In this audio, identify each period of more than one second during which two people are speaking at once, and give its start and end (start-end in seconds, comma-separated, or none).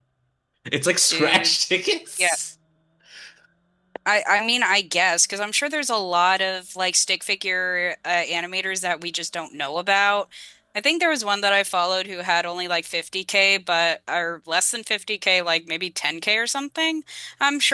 none